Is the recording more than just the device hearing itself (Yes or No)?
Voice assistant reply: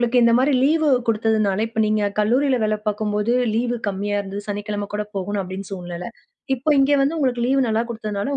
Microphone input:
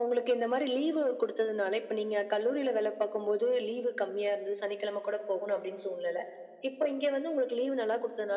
No